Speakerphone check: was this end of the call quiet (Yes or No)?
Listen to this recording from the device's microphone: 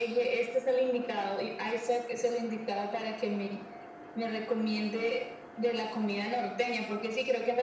Yes